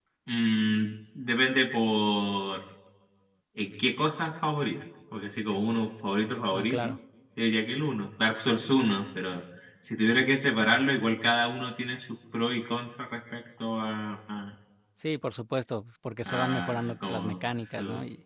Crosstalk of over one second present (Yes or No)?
Yes